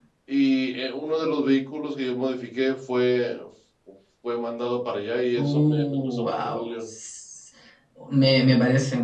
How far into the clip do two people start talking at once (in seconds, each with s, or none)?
5.3 s